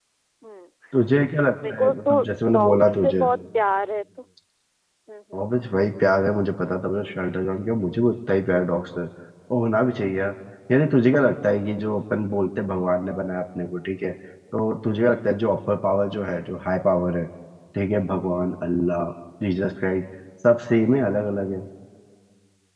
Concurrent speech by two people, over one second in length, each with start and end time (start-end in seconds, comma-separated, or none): 1.7-3.3